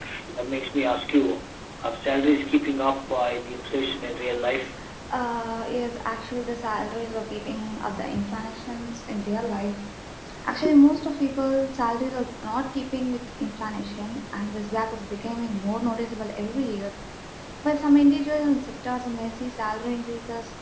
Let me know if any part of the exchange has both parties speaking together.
No

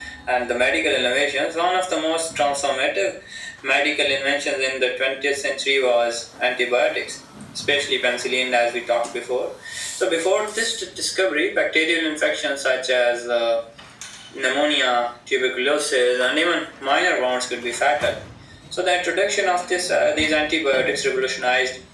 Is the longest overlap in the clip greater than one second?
No

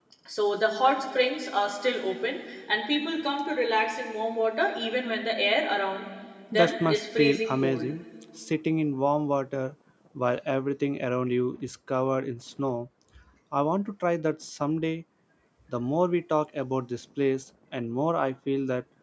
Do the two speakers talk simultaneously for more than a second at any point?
Yes, from 6.5 s

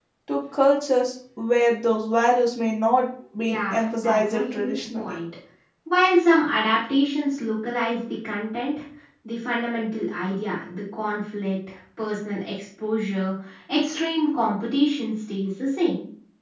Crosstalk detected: Yes, from 3.4 s

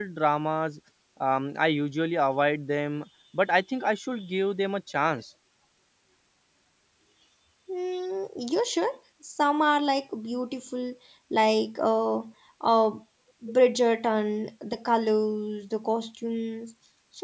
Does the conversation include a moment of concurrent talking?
No

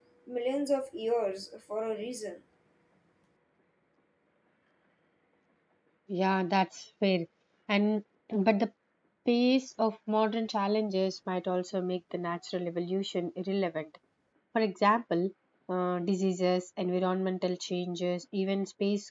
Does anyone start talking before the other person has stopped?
No

